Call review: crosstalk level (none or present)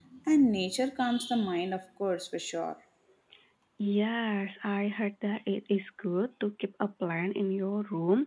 none